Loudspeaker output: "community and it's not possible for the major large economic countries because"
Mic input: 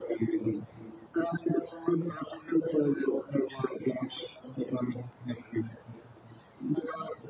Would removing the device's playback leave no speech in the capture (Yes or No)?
Yes